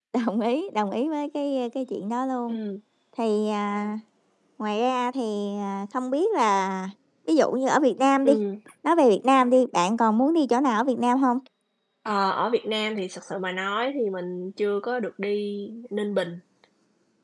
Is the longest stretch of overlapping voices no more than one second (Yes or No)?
Yes